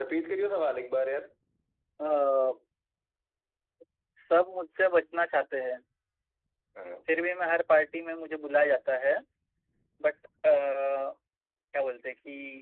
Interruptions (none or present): none